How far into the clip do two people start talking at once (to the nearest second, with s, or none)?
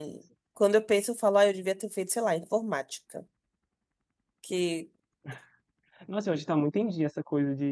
none